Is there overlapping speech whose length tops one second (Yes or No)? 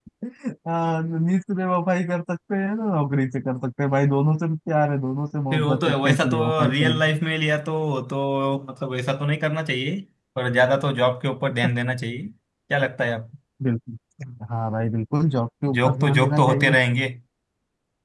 Yes